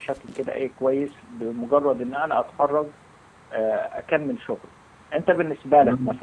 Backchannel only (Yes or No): Yes